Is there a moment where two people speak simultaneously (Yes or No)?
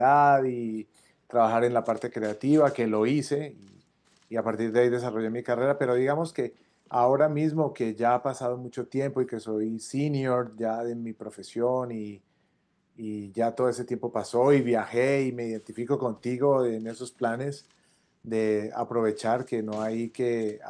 No